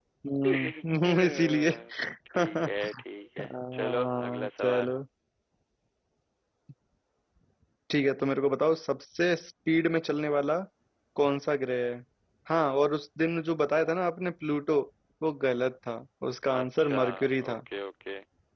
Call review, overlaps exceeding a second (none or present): present